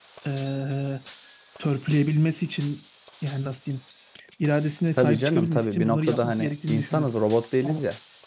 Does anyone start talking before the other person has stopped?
Yes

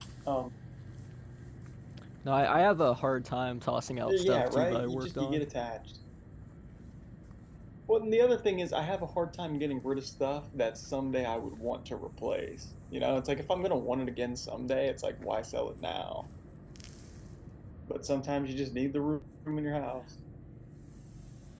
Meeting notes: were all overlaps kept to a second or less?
No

